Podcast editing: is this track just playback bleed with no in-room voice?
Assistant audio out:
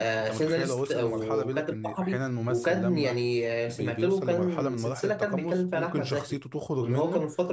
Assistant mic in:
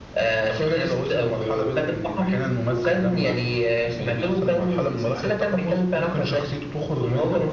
Yes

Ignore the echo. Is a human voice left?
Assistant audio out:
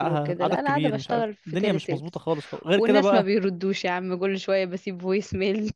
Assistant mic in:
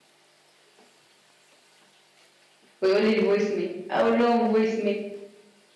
Yes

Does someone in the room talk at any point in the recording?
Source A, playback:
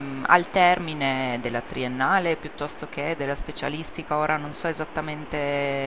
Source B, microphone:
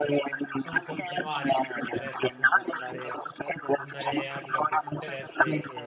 Yes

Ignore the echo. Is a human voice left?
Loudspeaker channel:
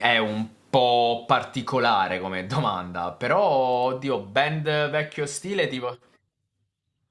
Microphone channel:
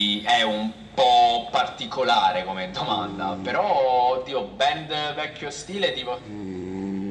No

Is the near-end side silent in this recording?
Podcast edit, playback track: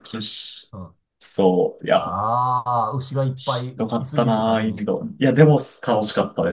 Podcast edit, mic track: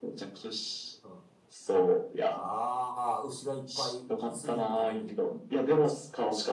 Yes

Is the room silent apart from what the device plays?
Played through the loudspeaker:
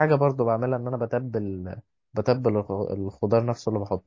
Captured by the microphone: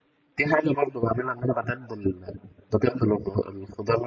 Yes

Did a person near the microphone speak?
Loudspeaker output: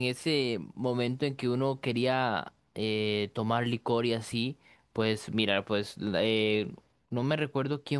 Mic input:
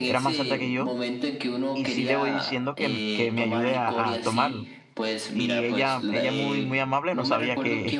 Yes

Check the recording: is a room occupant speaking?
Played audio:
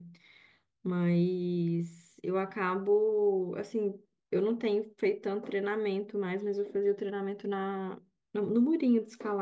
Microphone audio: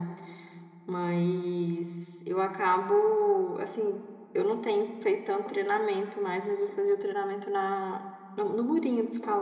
No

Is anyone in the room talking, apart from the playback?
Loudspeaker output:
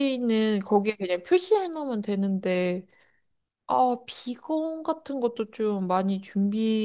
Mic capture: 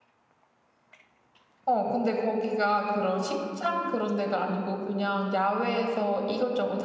Yes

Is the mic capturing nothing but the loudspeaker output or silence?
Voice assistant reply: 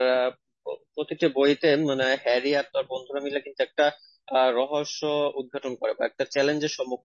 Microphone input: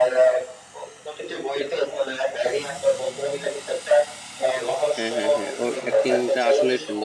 No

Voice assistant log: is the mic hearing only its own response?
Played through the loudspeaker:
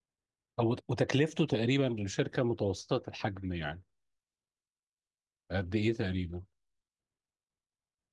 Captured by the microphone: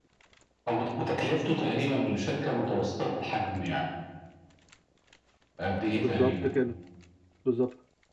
No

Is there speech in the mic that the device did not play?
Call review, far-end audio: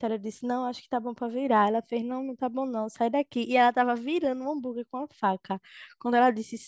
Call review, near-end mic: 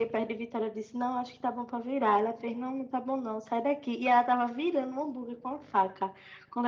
No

